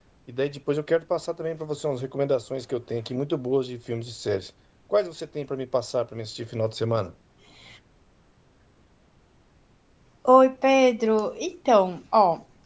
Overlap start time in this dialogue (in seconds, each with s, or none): none